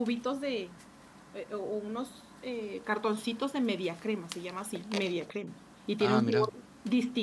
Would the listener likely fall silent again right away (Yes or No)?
Yes